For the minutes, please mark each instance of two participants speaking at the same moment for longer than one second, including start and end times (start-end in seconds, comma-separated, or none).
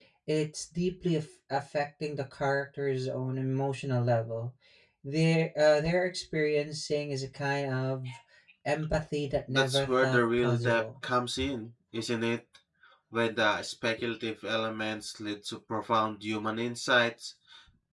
9.5-10.8